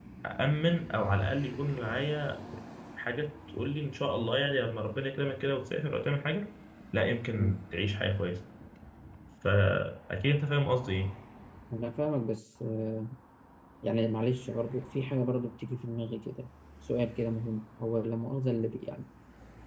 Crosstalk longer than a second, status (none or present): none